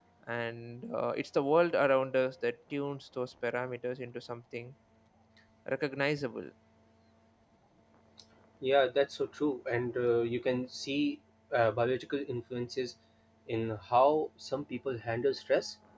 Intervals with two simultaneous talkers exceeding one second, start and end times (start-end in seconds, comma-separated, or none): none